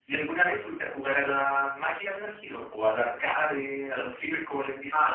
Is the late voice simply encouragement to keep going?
No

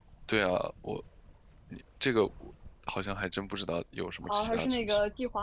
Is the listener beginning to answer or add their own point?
Yes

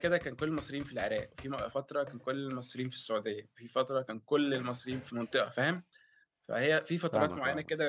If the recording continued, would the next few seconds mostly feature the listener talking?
No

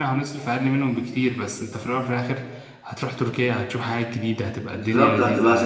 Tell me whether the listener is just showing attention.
No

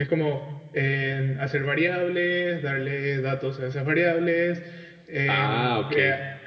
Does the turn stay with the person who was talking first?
Yes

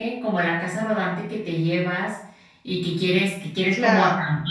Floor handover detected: No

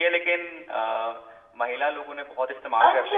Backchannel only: No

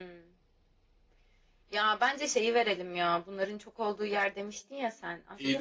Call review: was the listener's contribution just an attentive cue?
No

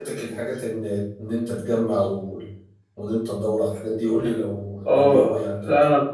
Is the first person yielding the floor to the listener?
Yes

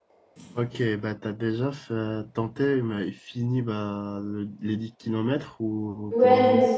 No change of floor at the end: No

